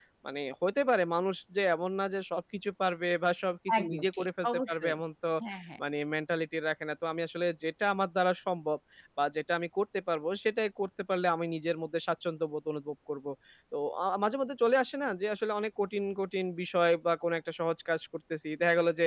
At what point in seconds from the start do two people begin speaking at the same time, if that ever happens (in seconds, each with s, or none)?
3.7 s